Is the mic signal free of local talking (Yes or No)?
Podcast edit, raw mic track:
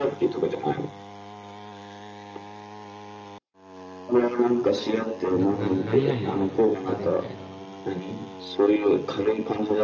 No